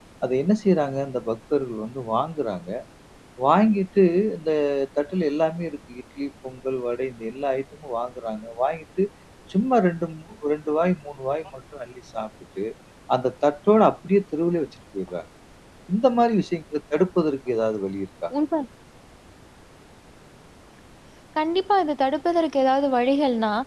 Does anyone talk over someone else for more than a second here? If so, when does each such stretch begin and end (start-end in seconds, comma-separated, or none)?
none